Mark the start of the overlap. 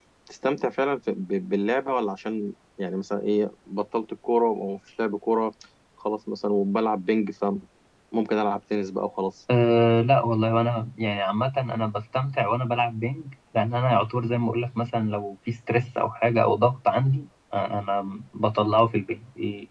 none

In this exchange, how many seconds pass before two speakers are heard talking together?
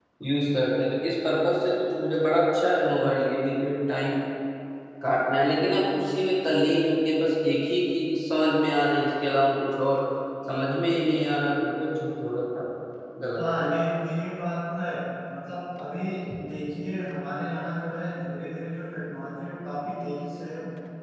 none

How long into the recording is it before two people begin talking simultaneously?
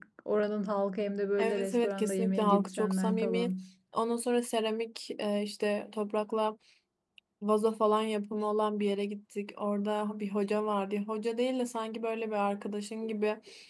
1.4 s

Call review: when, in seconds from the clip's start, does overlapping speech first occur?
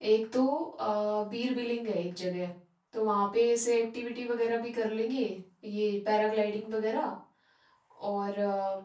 none

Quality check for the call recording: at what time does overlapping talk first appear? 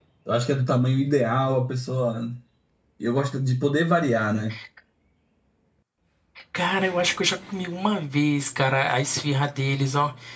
none

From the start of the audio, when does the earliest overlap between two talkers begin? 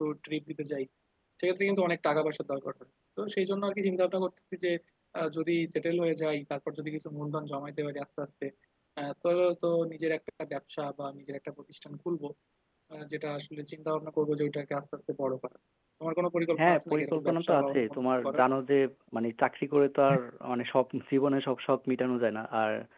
16.6 s

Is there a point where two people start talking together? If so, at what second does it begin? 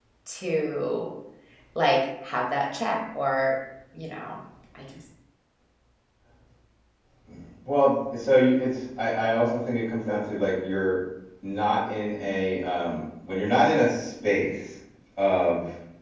none

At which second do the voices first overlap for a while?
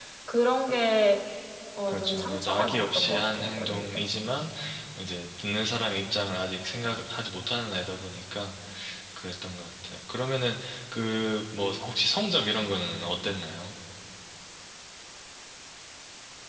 1.9 s

